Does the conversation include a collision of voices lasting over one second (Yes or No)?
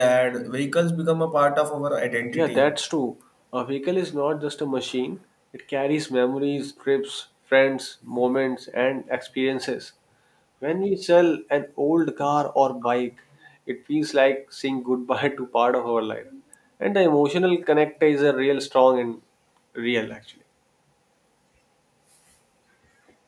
No